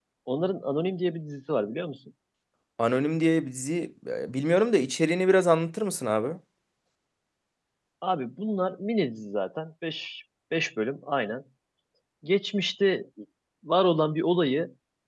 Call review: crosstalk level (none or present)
none